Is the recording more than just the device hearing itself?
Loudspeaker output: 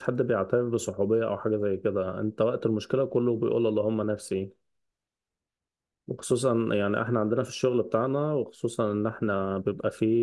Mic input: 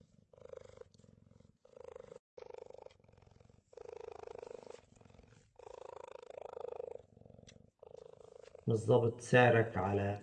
Yes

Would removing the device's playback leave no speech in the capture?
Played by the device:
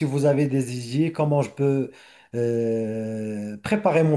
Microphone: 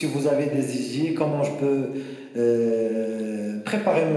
Yes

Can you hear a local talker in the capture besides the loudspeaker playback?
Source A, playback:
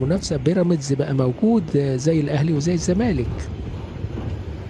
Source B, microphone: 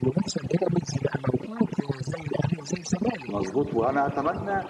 Yes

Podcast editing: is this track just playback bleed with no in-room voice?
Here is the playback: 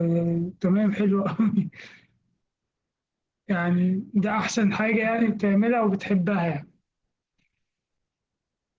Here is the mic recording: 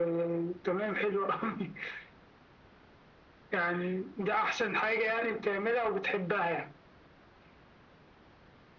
Yes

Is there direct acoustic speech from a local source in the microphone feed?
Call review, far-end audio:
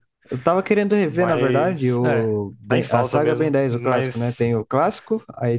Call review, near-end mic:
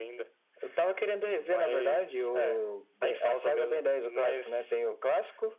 No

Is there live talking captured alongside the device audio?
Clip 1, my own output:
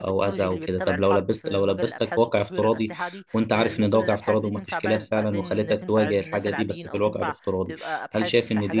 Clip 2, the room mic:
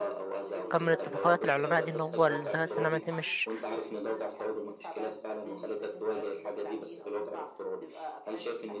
Yes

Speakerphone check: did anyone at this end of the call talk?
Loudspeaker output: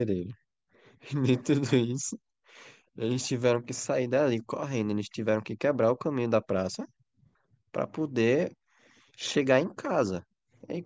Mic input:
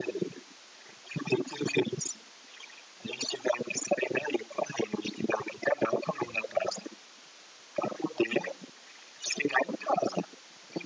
No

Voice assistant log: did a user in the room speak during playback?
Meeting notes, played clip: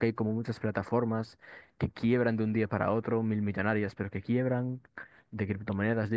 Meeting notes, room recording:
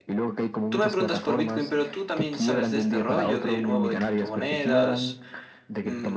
Yes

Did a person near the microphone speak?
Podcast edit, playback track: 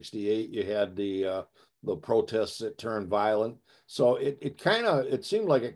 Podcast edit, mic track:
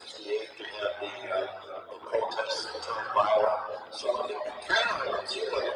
No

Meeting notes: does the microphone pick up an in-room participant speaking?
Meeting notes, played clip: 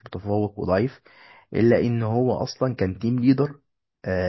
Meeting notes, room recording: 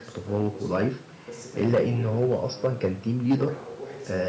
Yes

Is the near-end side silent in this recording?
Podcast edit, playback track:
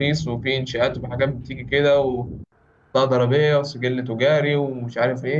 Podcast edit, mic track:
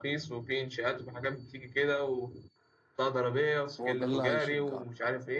No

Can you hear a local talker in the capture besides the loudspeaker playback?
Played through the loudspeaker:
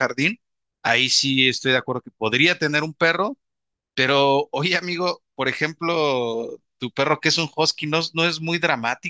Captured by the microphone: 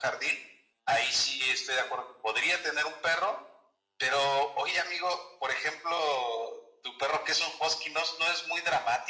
No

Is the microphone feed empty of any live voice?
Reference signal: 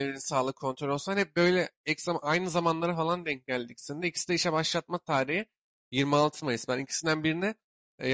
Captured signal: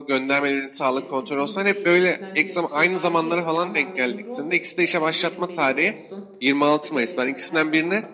No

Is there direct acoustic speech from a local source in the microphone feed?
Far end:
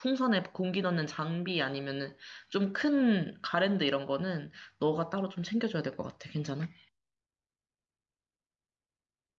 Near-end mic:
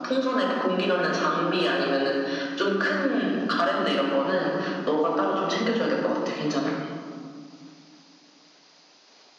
No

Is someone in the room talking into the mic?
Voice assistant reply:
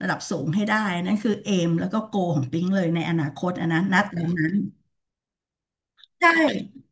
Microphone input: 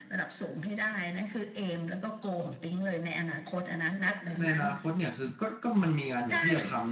Yes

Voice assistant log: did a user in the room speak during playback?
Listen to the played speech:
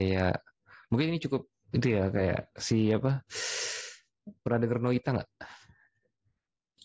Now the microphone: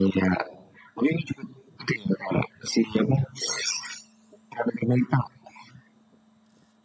No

